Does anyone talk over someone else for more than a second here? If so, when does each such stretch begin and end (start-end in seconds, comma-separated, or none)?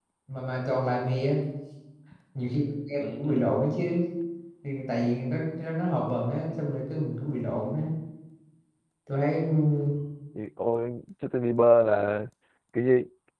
none